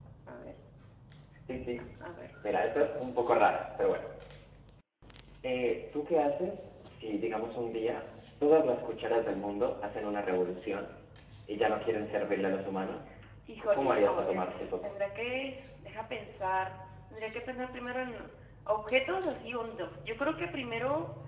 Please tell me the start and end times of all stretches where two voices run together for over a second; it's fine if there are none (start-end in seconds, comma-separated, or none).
13.6-14.9